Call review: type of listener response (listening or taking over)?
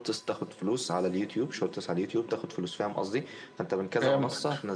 listening